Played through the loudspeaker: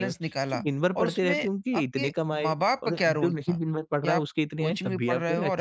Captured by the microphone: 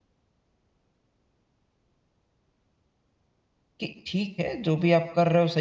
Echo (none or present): none